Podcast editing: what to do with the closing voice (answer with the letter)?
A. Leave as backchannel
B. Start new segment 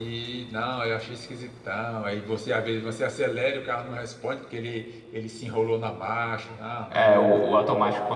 B